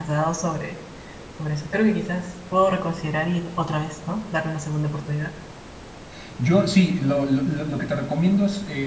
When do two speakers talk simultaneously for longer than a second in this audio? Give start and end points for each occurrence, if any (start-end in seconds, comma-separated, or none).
none